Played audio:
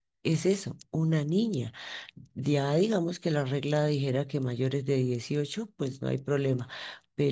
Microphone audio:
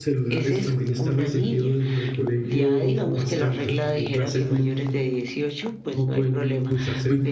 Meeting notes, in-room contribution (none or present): present